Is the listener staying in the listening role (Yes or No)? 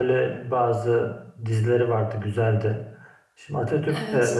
Yes